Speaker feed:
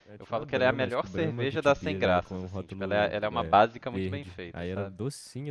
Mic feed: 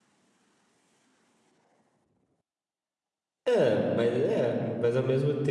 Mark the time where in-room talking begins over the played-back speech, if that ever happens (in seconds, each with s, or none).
3.5 s